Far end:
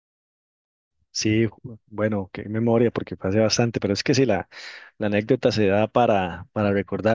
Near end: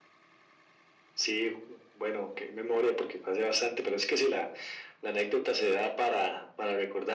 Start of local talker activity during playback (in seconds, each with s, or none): none